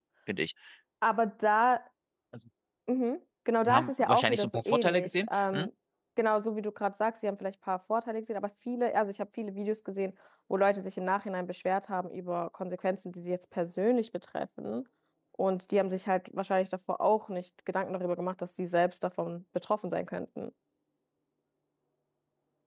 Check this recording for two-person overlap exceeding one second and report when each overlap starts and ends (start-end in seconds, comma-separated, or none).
3.6-5.7